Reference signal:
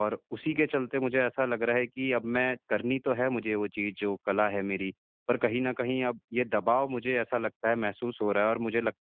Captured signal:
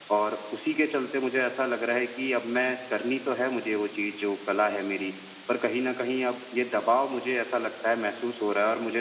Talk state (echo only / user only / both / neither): echo only